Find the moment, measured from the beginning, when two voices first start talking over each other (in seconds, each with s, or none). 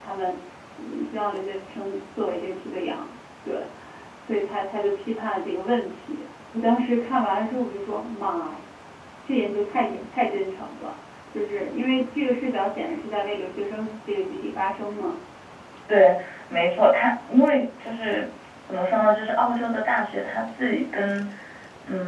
none